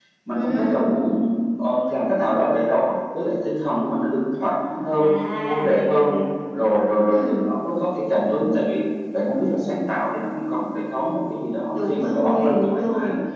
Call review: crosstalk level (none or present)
present